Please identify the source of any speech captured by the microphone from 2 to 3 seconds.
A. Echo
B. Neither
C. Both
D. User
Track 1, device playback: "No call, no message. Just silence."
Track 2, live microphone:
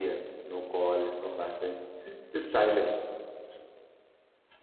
A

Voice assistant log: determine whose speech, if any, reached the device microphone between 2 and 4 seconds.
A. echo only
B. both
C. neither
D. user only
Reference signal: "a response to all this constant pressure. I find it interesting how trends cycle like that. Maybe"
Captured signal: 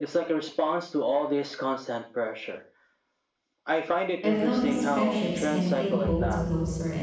A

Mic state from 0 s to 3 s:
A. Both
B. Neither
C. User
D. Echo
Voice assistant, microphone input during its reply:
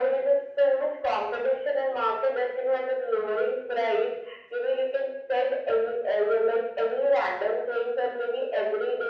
D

